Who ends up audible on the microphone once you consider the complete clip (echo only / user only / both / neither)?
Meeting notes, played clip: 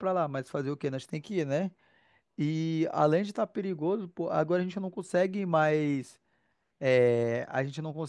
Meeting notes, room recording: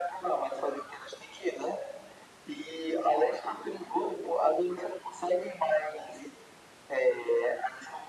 echo only